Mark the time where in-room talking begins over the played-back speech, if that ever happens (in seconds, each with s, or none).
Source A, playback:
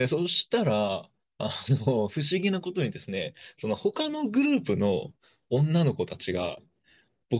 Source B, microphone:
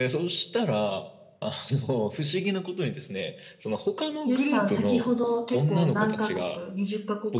4.2 s